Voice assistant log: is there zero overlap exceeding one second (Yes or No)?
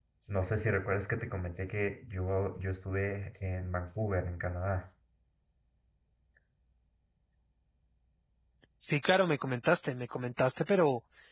Yes